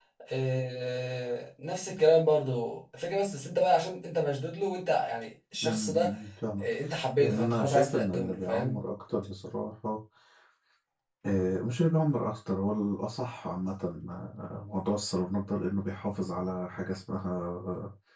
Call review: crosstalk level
present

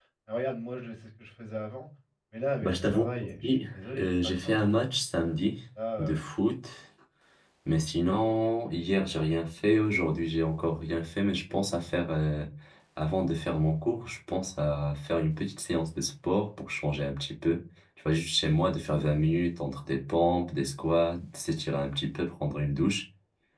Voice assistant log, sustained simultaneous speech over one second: present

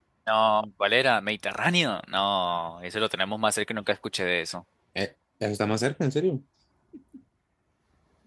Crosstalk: none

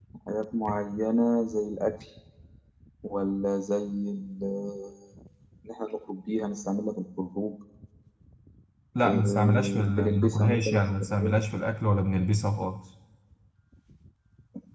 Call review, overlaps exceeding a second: present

